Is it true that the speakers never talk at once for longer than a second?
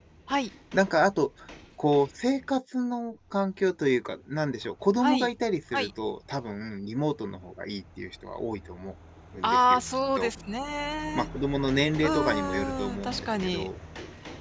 No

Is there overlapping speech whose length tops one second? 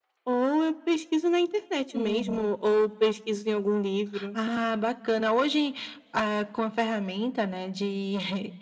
No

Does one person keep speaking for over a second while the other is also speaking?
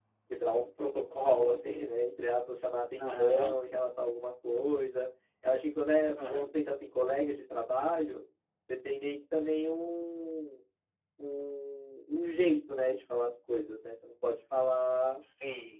No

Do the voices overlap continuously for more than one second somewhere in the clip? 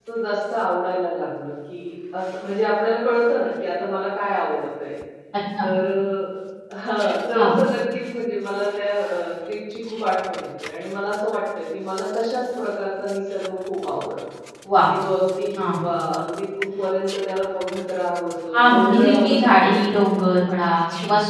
Yes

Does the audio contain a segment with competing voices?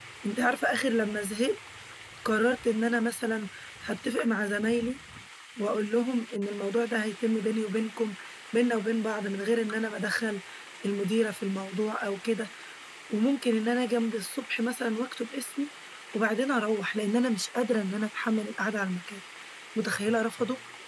No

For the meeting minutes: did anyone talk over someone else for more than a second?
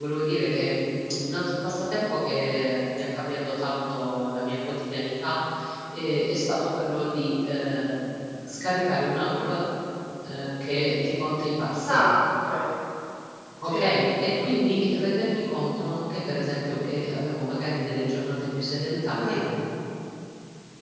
No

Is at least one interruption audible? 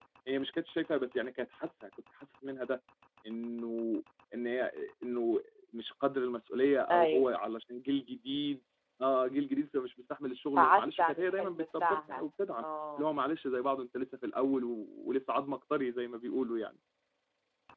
Yes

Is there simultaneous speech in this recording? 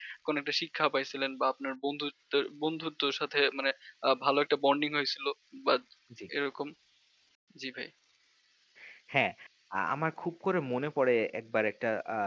No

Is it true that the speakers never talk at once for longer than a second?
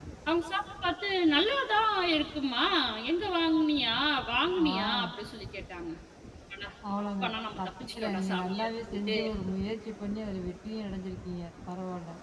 No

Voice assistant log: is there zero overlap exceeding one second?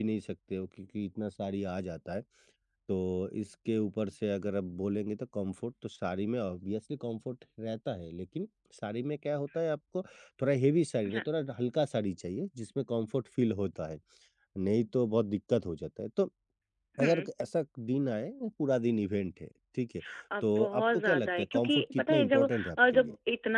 No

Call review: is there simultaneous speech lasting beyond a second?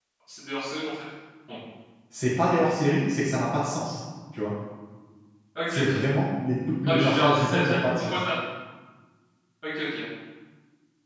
Yes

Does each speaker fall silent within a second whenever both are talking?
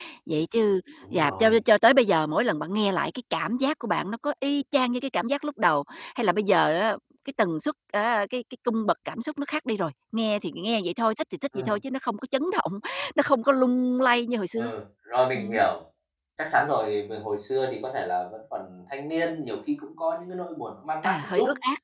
Yes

